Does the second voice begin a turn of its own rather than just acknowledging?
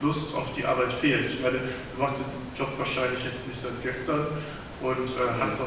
No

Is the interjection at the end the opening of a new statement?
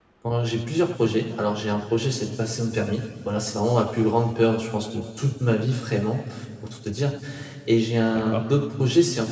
No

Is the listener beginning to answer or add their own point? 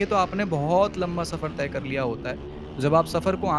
No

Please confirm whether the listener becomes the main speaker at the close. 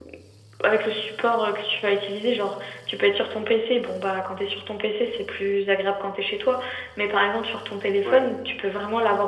No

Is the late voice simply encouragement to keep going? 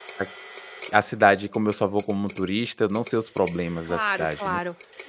No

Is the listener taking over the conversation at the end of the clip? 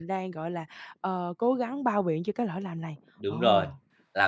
Yes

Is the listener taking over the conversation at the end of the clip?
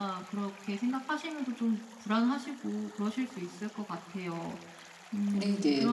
Yes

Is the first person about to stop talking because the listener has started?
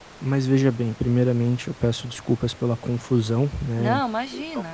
No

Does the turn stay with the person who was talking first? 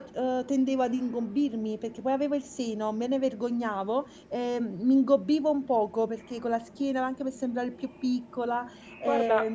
No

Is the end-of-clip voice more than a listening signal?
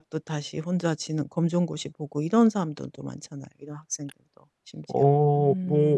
Yes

